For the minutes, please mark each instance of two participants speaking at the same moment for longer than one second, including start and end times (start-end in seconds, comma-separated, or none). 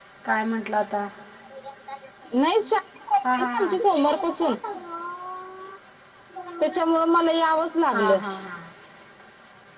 none